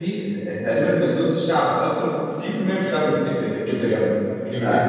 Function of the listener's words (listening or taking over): listening